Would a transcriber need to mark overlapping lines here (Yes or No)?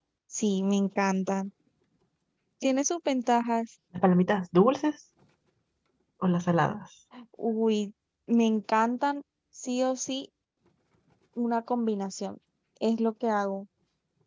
No